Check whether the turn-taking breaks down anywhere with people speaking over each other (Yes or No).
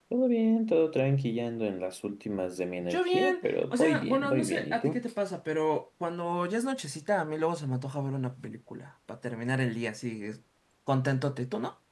Yes